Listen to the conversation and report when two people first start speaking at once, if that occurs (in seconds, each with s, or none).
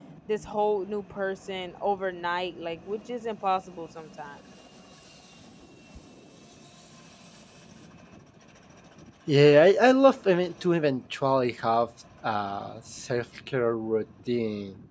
none